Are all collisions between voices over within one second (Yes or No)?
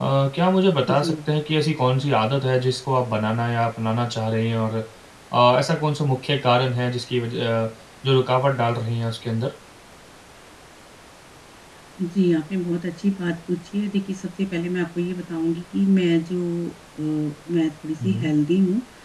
Yes